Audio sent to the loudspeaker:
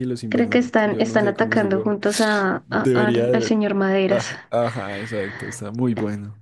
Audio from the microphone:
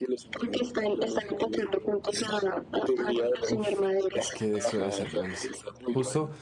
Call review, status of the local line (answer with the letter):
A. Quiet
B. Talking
B